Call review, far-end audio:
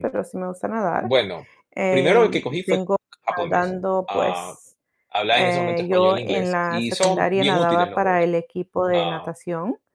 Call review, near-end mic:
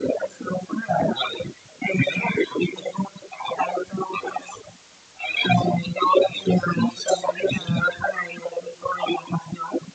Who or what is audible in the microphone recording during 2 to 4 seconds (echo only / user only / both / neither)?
echo only